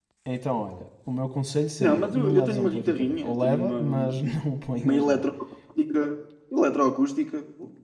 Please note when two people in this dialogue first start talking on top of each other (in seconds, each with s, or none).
1.8 s